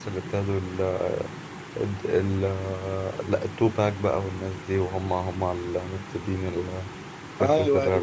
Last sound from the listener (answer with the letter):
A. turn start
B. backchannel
A